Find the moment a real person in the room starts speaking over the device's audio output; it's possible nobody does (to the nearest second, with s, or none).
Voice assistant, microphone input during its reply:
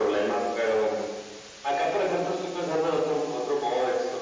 none